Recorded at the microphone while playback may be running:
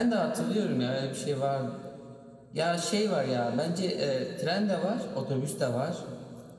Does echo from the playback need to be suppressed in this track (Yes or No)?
Yes